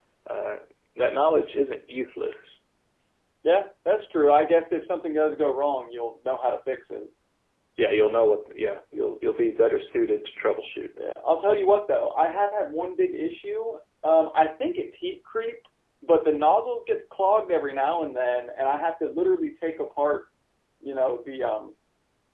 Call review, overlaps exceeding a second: none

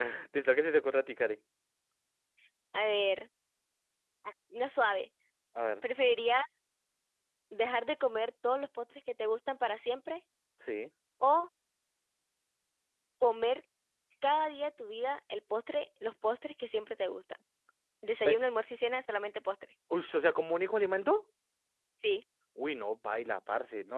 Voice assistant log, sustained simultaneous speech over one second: none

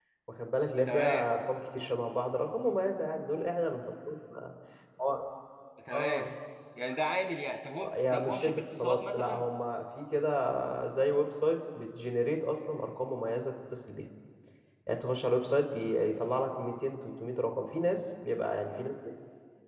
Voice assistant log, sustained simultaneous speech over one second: present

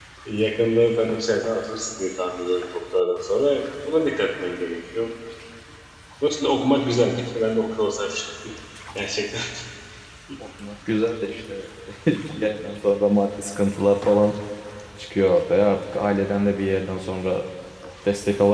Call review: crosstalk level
none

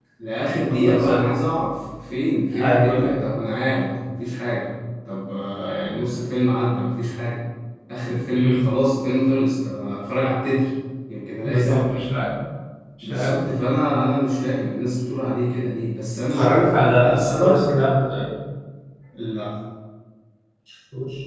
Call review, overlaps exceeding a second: present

